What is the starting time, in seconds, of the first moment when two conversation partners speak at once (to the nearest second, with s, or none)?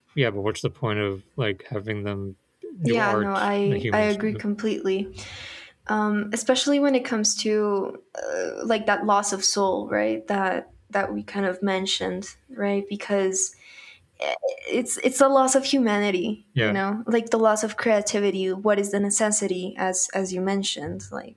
3 s